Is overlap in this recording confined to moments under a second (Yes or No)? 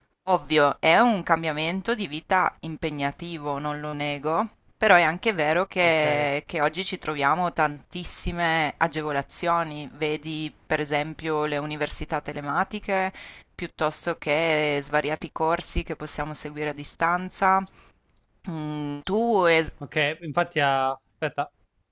Yes